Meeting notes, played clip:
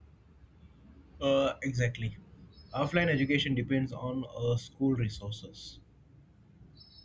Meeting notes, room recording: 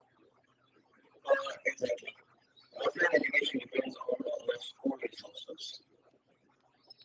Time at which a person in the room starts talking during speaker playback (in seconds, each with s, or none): none